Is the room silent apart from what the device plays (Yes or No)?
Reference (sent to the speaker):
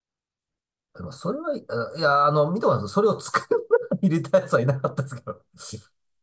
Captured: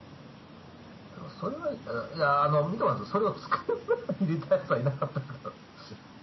Yes